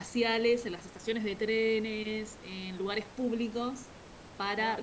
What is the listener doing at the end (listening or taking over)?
taking over